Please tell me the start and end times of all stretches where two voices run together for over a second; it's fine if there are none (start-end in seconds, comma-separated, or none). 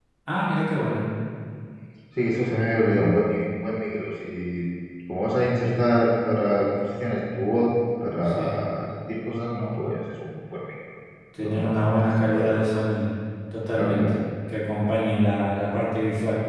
11.4-12.7